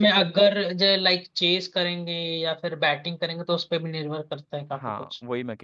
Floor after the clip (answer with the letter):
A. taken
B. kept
A